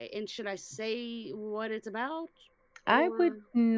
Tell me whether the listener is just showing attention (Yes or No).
No